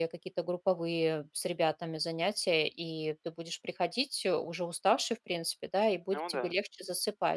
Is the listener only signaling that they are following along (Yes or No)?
Yes